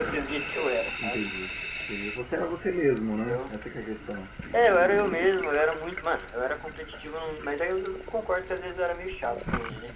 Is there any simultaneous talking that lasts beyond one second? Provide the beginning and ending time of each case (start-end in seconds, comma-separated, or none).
none